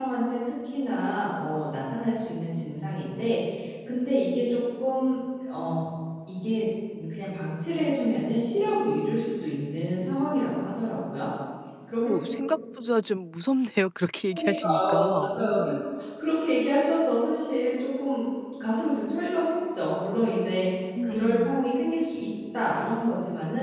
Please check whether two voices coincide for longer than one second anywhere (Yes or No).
Yes